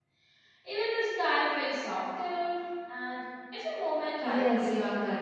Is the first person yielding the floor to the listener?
Yes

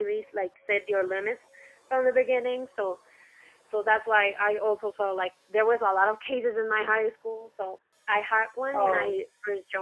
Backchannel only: Yes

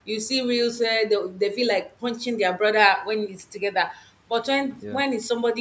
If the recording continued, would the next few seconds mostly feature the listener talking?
No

